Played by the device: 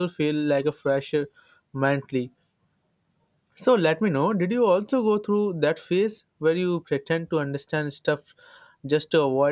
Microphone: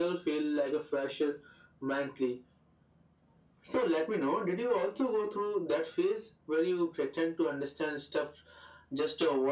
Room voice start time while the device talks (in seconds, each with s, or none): none